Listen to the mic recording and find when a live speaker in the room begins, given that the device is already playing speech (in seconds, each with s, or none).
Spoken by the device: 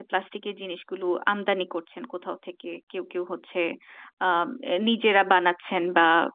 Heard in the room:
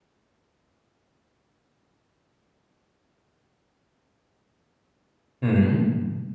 5.4 s